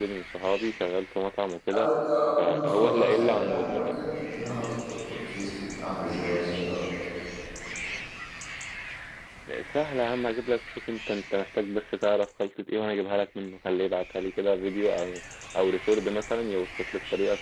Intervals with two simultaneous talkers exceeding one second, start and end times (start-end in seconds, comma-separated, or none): 2.4-3.9